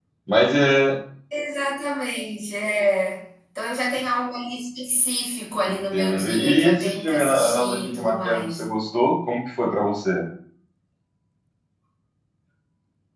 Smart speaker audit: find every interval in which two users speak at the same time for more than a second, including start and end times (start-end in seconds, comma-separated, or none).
5.7-8.7